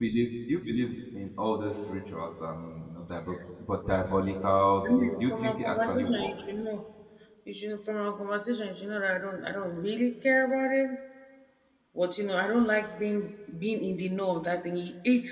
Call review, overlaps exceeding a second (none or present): present